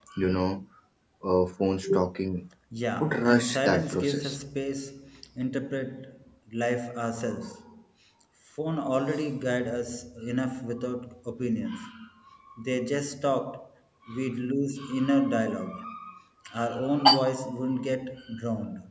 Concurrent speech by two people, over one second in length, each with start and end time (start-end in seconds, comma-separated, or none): 3.0-4.4